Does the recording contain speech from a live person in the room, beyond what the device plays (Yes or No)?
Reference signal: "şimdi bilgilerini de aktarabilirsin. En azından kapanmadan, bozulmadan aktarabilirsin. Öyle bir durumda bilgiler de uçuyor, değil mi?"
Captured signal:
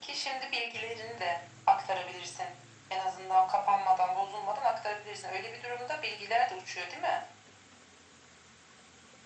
No